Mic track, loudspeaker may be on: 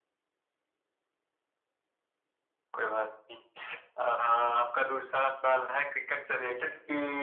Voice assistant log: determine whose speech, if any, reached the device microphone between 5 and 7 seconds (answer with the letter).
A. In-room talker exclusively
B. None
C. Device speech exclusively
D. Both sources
C